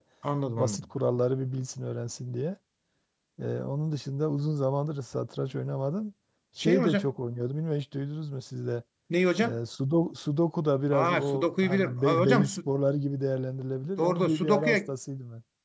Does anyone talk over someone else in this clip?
Yes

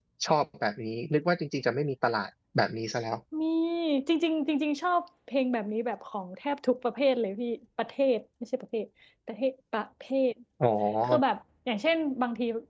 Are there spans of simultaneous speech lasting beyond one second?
No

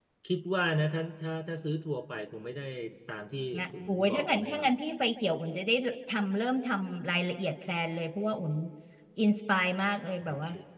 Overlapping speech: Yes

